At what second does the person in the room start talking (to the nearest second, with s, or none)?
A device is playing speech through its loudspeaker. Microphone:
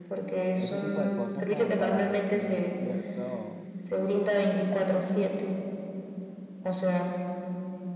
1 s